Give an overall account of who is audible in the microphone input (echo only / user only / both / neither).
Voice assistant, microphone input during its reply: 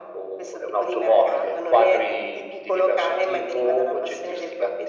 echo only